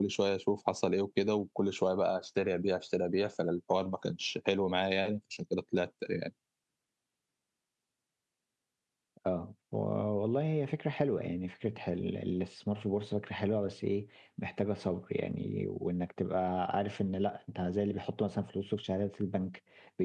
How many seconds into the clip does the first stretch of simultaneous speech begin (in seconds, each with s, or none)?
none